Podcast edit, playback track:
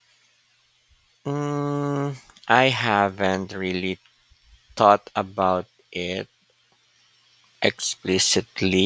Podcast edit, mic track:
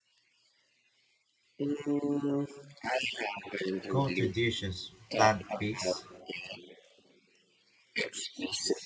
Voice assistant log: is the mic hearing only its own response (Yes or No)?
No